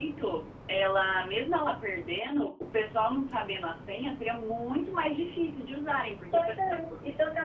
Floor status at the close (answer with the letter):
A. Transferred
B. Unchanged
A